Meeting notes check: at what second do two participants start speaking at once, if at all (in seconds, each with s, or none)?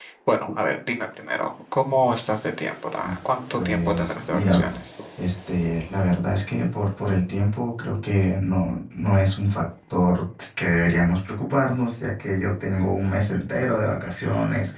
3.5 s